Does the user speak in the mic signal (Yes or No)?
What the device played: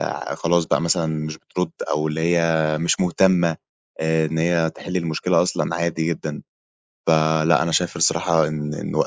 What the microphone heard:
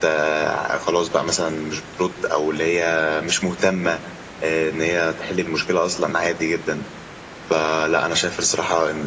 No